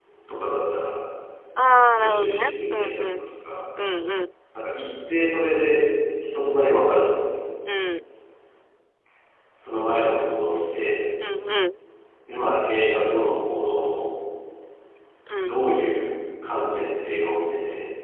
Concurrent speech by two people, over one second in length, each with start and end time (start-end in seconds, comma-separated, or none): 2.0-3.2